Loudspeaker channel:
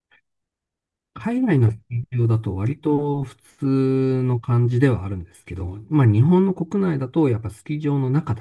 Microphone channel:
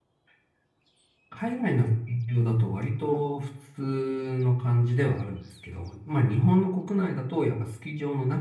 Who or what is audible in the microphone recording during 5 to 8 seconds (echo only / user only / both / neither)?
echo only